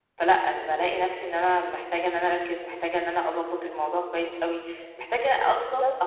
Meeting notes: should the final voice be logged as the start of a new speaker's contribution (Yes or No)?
No